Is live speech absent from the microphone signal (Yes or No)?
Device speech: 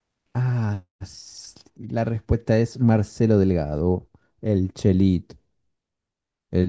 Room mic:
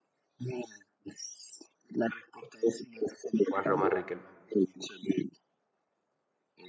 No